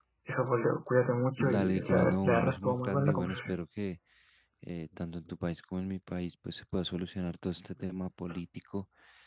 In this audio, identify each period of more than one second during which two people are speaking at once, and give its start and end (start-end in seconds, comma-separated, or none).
1.4-3.5